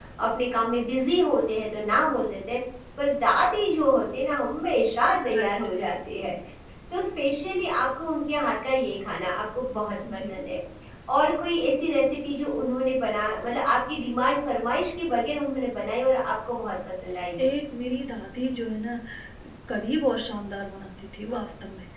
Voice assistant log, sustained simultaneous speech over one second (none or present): none